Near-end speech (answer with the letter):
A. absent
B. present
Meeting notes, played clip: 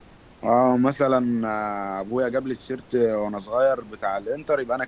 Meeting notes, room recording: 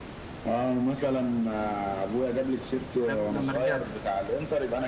B